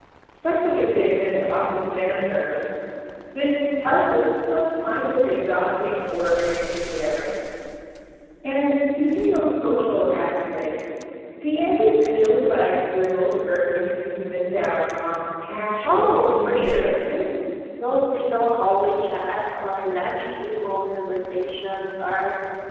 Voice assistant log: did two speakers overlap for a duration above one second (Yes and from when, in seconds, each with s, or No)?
Yes, from 15.8 s